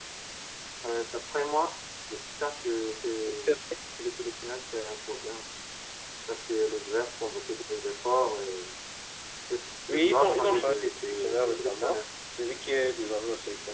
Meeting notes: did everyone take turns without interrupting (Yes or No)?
No